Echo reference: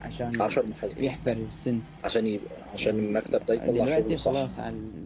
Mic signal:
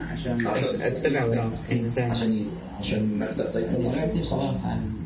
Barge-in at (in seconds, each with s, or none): 0.6 s